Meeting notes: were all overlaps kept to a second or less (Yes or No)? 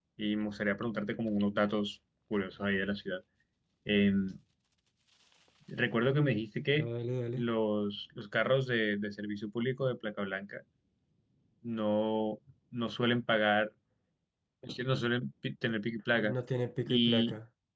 Yes